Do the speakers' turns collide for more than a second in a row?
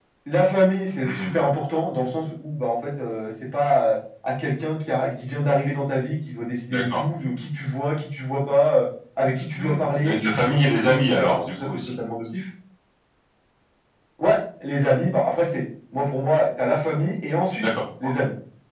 Yes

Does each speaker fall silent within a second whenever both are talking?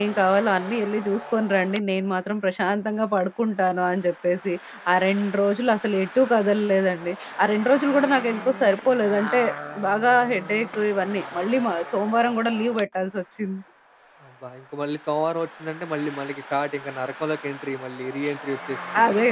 Yes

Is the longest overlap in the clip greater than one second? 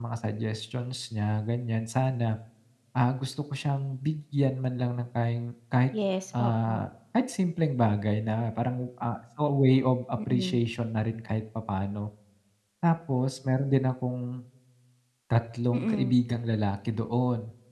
No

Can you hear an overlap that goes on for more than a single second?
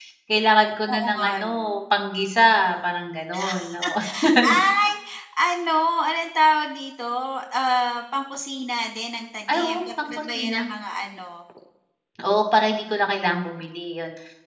Yes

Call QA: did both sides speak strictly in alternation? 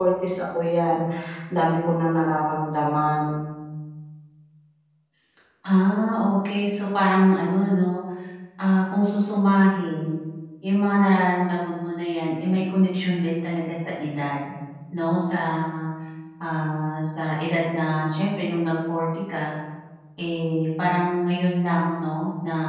Yes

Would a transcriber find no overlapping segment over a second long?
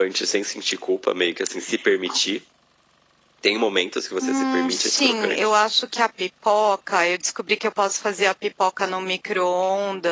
No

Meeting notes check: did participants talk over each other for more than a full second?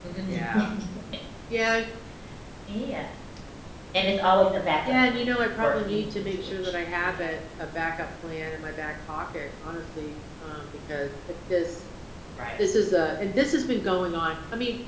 Yes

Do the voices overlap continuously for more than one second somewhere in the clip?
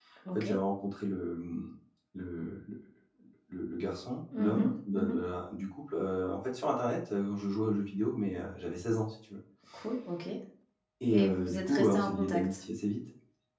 Yes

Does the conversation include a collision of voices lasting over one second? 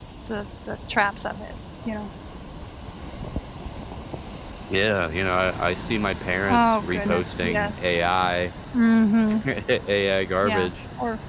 Yes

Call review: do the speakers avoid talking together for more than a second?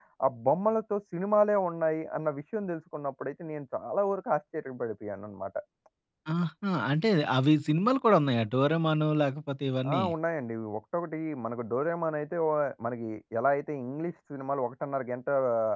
Yes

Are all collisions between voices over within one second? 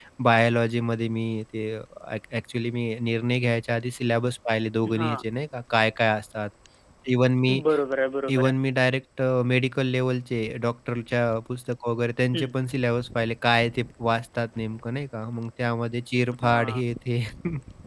Yes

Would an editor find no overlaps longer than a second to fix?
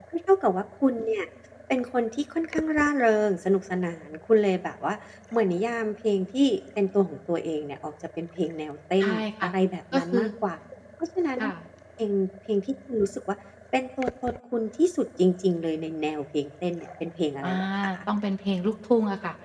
Yes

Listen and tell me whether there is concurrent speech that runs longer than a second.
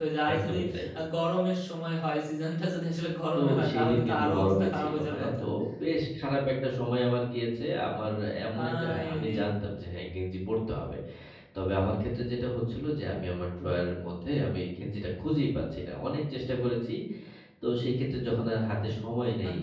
Yes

